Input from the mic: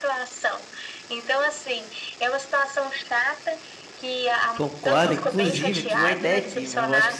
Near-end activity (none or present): present